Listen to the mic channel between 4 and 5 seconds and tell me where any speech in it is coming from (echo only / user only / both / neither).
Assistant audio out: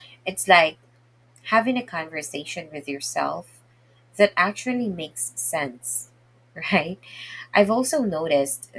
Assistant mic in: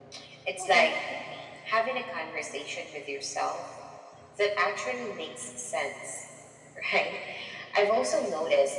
echo only